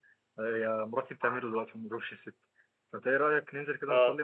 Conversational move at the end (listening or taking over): listening